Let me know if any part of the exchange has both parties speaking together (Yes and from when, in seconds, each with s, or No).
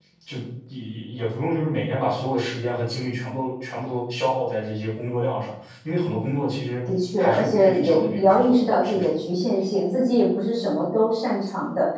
Yes, from 7.2 s